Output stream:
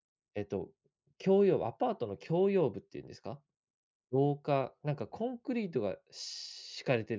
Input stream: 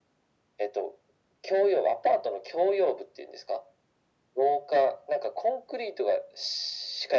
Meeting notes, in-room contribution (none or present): none